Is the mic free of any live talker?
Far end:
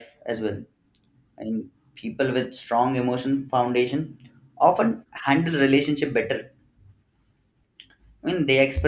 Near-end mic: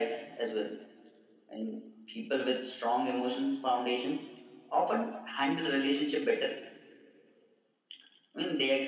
Yes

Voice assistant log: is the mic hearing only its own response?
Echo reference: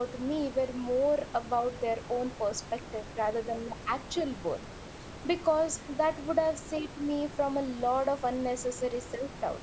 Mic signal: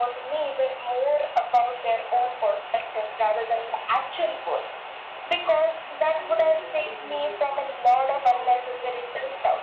No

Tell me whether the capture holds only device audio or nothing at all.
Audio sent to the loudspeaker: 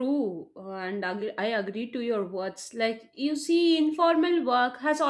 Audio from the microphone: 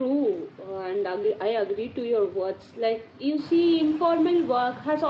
Yes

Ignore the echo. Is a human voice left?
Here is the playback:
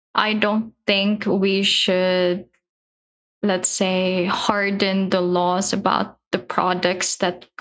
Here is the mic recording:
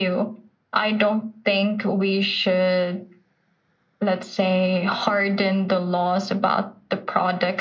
No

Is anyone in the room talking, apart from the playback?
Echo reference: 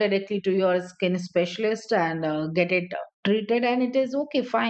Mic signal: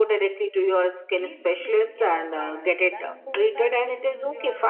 Yes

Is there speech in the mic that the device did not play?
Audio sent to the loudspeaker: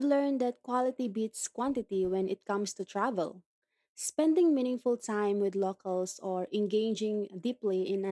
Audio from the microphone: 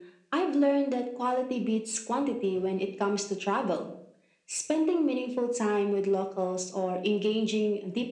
No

